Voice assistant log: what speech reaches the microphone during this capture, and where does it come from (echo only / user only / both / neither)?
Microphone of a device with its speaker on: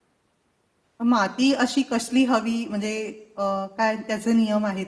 user only